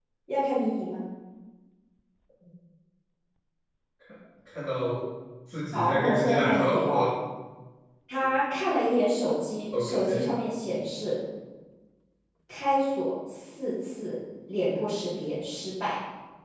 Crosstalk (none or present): present